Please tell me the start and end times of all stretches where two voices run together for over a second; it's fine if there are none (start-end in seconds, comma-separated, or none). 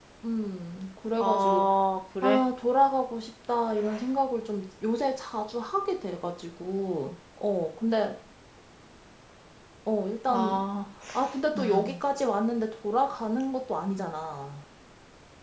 none